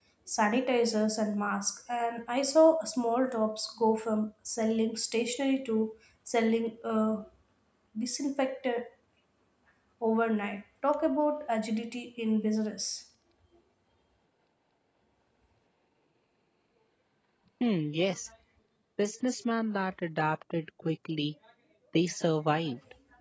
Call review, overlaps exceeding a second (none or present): none